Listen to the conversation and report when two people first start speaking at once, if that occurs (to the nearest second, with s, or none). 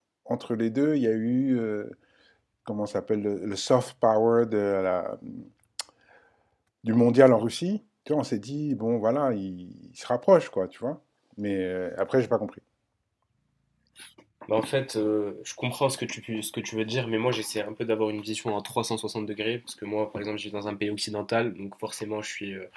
none